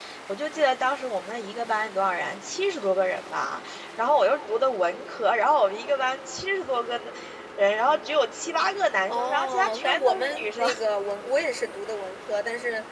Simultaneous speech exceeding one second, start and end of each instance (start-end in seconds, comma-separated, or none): 9.1-10.7